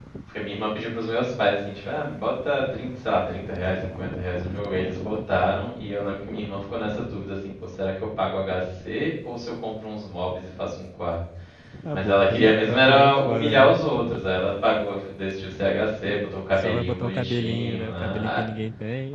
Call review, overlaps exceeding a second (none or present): present